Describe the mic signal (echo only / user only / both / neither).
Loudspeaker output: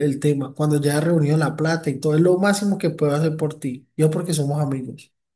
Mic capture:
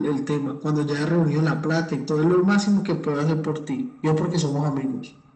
echo only